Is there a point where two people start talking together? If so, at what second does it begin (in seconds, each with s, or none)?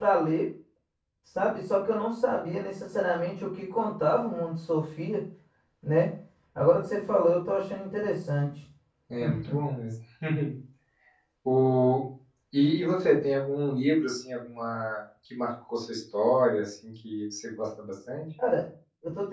none